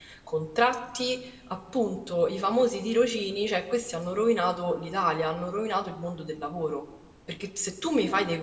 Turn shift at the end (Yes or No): No